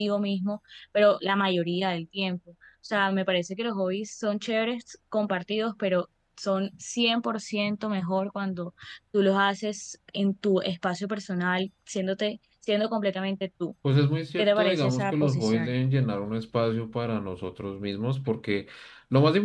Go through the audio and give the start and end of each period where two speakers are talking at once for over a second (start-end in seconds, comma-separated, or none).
14.4-15.7